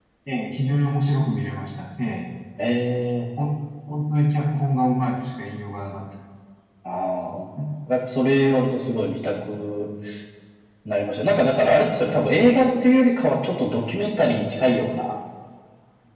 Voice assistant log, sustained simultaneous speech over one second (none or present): none